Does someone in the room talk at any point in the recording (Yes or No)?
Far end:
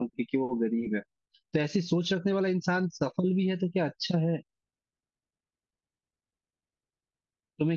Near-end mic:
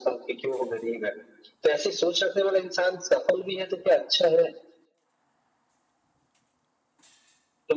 No